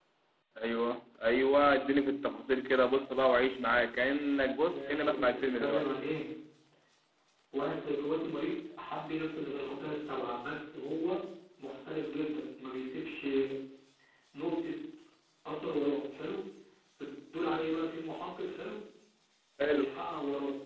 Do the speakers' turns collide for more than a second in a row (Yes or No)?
Yes